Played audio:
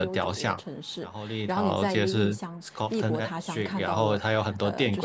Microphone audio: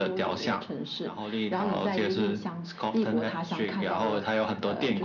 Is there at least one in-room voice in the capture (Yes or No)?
No